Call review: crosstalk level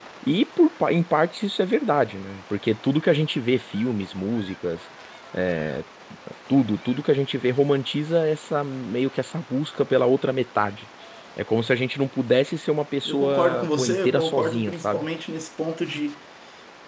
present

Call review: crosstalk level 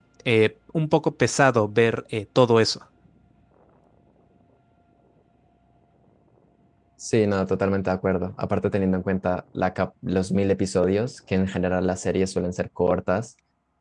none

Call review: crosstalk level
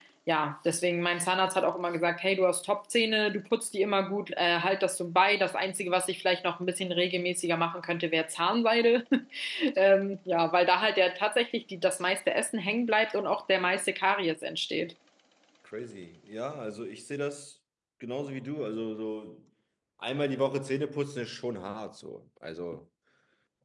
none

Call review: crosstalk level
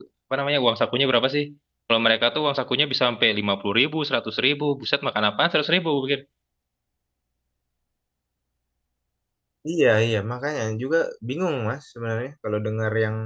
none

